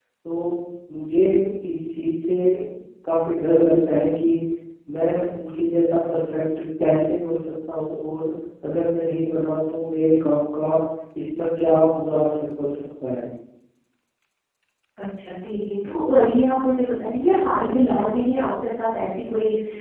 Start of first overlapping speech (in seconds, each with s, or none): none